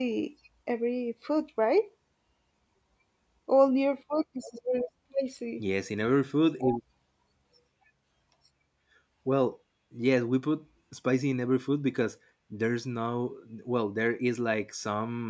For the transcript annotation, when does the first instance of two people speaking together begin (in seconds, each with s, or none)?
none